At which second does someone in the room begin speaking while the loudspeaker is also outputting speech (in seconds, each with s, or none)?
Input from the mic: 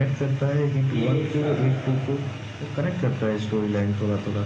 0.9 s